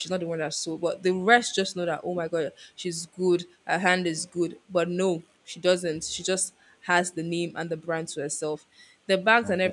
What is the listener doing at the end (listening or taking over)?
listening